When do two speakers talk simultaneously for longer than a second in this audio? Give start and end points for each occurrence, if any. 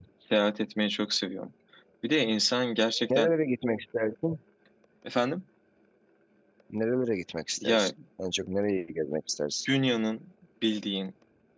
none

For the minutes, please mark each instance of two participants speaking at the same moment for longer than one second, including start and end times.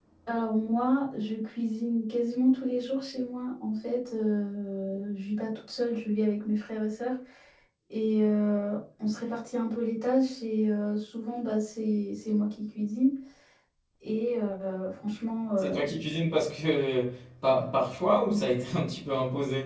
none

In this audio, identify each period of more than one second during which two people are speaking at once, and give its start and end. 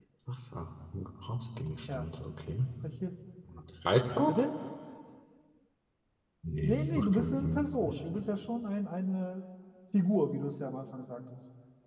6.6-8.0

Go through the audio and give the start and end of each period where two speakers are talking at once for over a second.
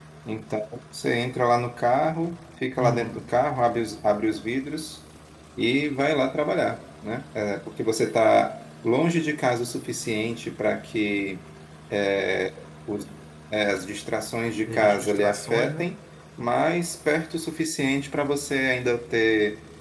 14.7-15.9

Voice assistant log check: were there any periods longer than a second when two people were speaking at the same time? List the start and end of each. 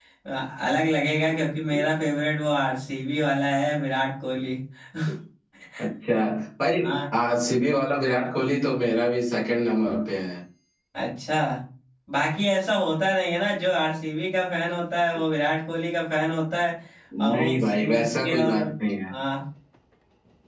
17.3-18.6

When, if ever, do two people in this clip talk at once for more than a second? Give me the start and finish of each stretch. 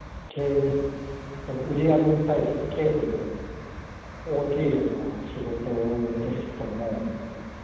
none

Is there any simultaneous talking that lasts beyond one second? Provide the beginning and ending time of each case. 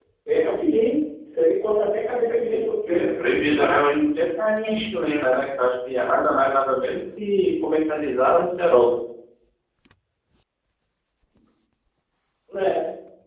2.1-3.9

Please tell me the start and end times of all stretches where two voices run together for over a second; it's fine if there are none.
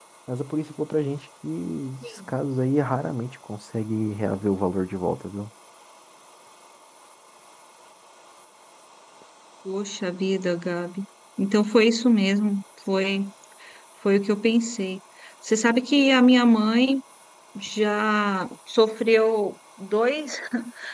none

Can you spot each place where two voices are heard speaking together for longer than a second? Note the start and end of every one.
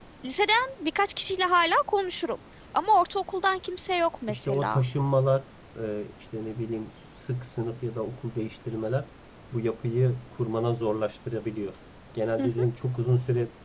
none

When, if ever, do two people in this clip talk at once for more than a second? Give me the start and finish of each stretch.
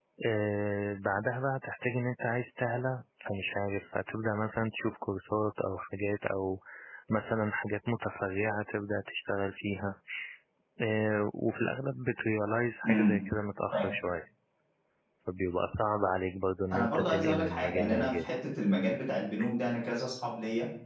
16.7-18.3

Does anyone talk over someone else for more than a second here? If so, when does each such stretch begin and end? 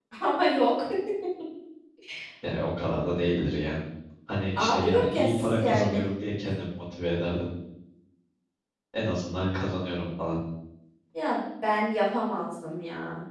4.6-6.0

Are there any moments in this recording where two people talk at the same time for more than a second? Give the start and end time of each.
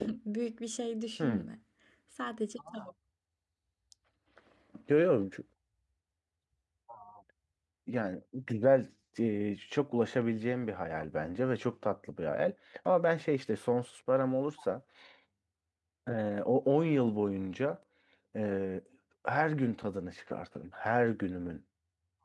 none

